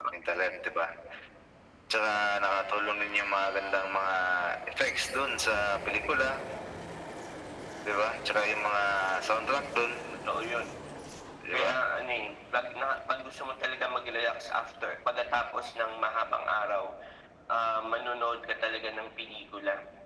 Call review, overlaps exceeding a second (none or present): none